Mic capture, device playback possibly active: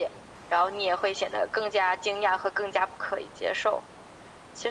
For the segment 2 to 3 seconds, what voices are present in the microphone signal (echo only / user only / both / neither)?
echo only